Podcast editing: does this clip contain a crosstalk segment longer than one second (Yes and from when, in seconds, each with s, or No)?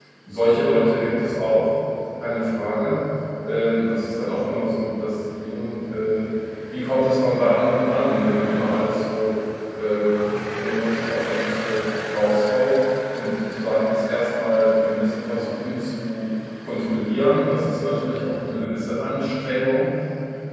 No